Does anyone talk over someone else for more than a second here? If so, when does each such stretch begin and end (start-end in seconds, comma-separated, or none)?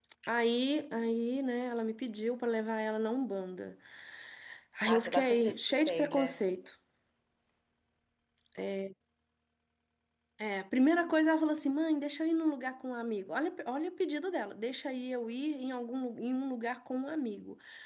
4.9-6.3